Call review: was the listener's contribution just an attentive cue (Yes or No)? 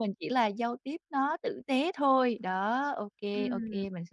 Yes